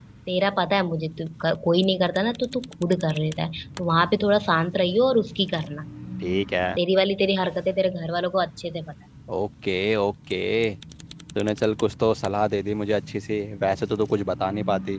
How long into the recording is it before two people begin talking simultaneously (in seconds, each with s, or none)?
none